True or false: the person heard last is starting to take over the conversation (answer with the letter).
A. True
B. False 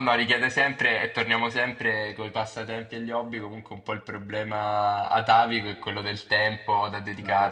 A